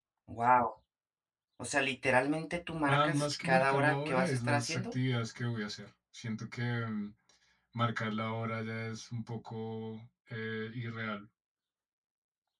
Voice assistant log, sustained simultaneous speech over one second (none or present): present